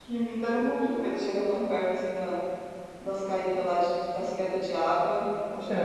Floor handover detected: Yes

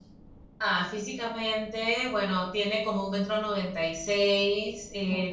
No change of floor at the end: Yes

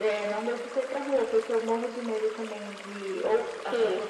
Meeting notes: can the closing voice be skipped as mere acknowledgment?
Yes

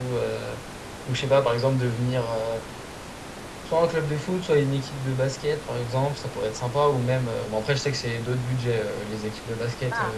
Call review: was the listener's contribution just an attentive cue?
Yes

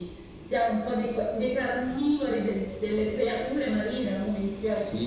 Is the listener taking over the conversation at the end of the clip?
Yes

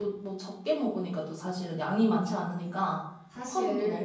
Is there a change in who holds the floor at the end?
Yes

